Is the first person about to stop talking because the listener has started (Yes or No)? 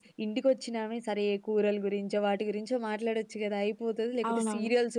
No